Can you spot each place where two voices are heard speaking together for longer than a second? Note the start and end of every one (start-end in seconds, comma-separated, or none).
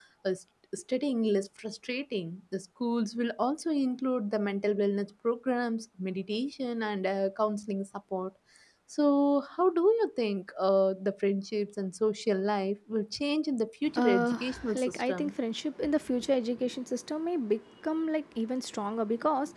14.0-15.3